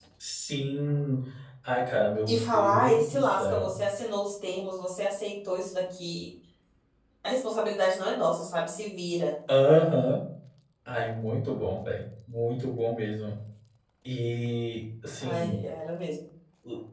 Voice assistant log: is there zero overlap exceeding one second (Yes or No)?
No